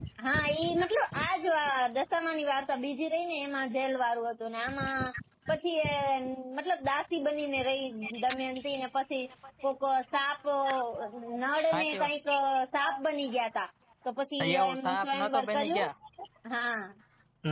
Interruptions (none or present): present